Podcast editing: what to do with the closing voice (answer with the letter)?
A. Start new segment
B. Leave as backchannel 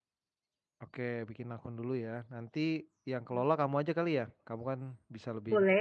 A